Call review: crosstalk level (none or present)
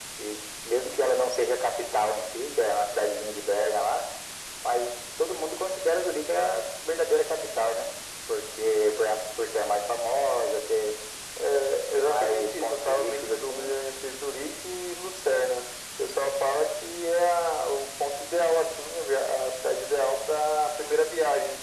present